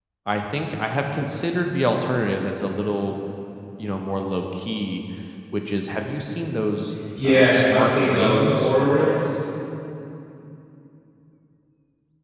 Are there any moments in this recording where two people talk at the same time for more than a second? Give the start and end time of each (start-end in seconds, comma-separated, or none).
7.2-8.7